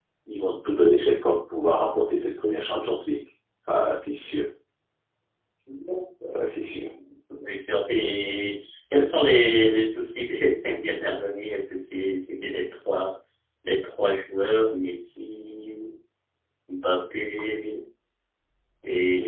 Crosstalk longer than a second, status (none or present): none